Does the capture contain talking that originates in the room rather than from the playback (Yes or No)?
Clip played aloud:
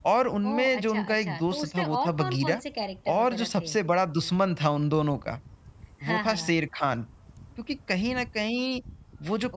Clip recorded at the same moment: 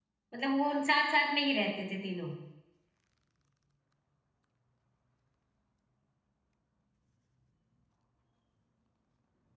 Yes